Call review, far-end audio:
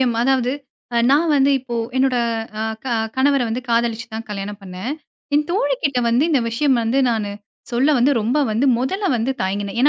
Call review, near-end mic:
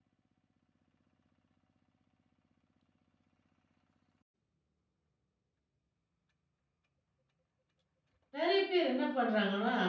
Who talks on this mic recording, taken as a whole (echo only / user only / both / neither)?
user only